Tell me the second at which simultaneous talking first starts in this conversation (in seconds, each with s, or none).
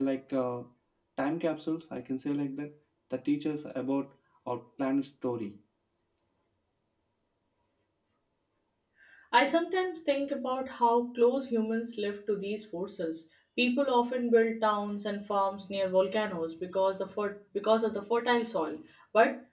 none